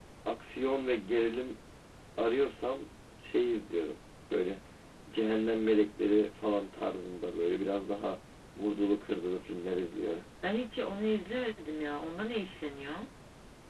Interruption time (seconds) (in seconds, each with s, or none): none